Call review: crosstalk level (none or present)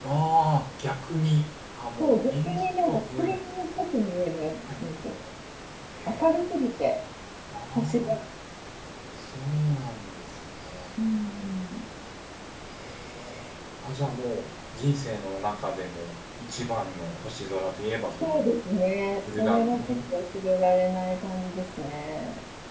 present